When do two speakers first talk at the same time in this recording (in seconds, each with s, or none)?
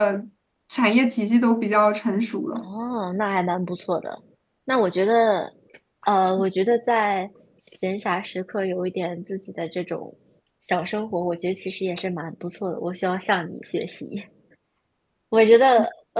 none